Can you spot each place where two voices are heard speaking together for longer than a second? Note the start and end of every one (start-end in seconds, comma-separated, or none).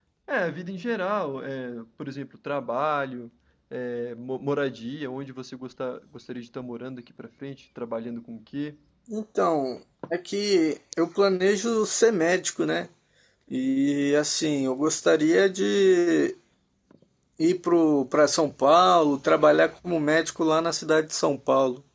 none